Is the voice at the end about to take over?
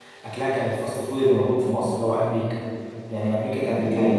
No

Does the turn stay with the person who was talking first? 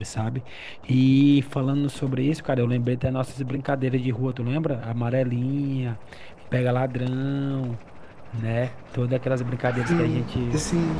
No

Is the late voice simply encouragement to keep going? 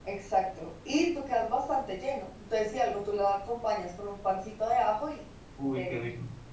No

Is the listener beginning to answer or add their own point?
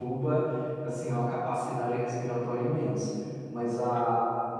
No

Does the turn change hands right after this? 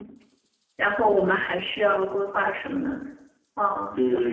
Yes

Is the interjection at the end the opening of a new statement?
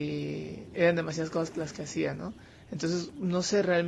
No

